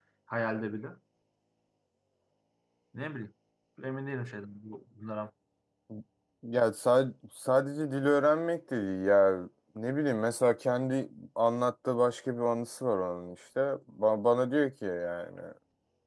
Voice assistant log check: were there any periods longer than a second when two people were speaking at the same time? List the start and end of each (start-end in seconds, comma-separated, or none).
none